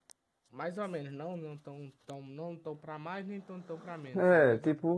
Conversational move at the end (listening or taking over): taking over